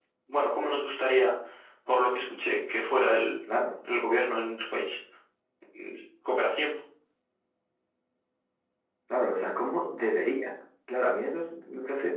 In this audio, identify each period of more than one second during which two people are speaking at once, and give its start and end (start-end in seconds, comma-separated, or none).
none